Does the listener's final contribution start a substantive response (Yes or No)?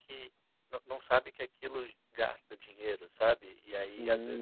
Yes